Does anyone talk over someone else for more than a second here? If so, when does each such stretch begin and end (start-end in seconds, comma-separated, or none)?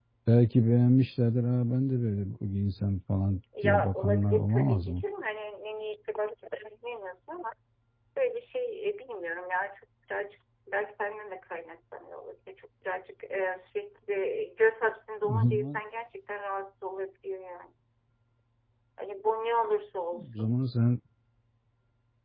3.6-5.0